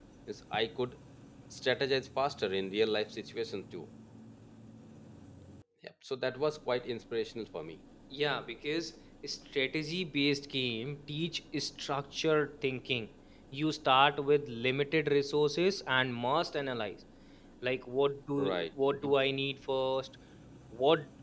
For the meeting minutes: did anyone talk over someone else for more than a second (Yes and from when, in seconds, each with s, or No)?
No